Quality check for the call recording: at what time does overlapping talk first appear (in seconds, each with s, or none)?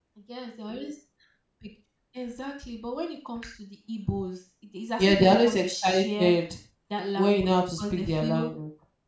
5.0 s